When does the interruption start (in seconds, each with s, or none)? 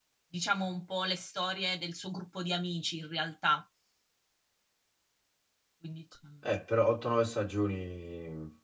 none